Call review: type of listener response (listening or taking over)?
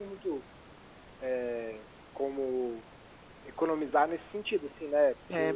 taking over